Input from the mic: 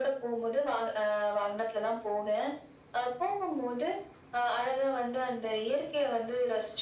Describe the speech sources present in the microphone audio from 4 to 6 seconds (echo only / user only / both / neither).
echo only